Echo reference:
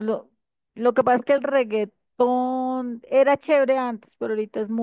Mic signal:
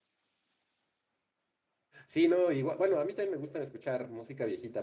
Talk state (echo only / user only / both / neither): user only